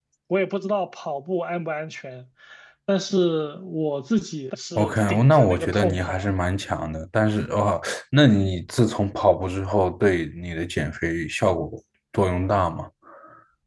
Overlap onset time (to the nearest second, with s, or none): 5 s